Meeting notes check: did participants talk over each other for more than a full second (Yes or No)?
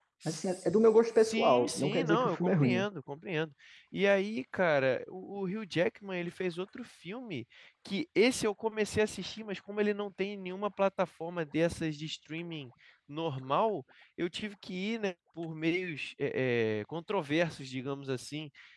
Yes